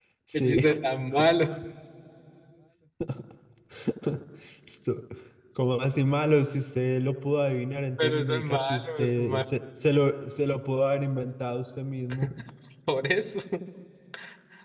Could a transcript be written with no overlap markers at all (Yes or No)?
No